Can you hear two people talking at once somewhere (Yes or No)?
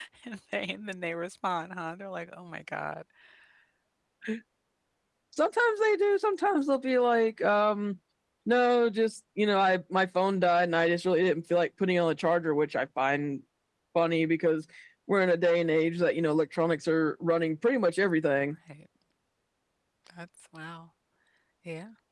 No